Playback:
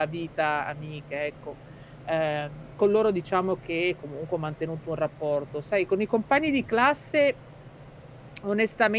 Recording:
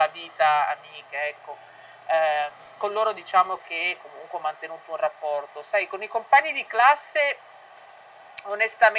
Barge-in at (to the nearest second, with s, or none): none